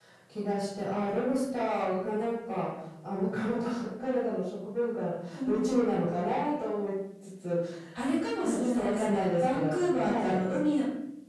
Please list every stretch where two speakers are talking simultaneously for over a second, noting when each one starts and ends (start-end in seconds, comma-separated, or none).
8.4-10.4